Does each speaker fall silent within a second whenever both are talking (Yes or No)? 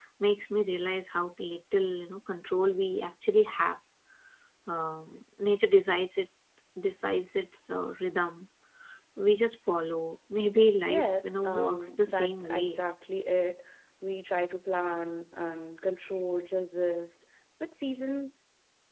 No